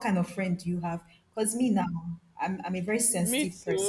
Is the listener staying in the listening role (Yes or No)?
Yes